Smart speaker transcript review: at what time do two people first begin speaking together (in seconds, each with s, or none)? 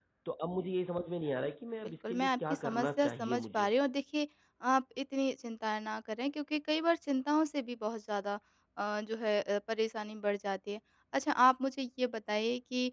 1.8 s